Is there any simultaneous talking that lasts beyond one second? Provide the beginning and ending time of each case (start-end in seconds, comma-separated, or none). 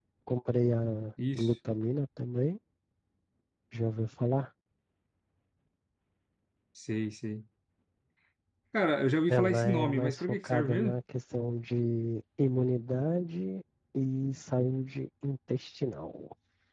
9.3-11.0